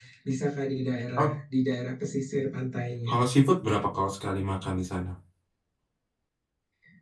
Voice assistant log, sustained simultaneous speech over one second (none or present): none